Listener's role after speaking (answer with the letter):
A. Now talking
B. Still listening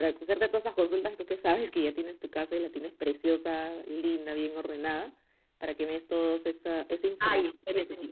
A